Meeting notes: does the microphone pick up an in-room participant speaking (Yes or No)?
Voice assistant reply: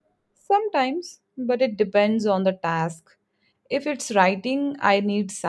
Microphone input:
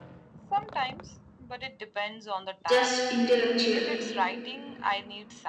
Yes